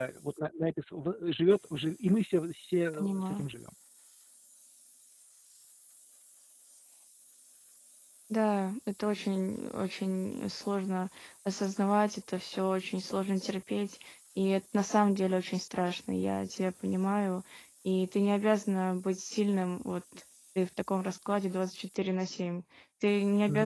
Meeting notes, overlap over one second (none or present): none